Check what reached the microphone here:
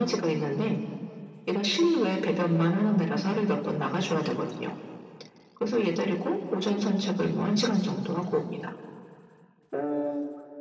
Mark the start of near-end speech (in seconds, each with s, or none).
none